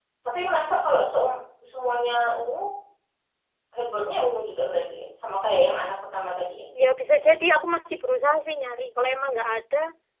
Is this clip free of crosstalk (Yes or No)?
Yes